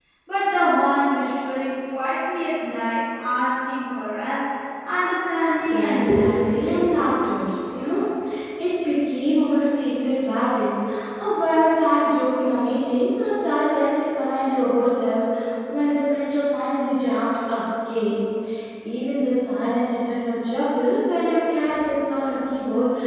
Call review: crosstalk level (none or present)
present